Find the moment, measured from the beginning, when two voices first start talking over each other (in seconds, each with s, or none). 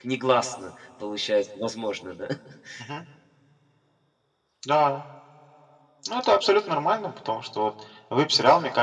none